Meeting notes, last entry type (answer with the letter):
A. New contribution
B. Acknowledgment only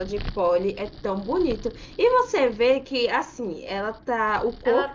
A